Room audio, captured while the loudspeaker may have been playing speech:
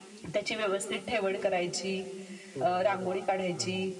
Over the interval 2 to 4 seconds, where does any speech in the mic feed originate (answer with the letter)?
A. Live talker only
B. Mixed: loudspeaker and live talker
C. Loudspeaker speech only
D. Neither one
B